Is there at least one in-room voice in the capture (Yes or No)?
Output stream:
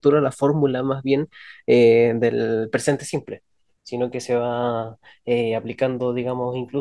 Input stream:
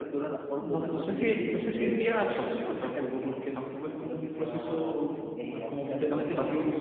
Yes